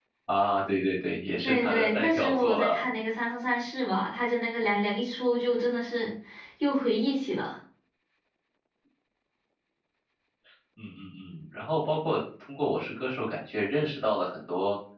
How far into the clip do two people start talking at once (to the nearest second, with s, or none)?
1 s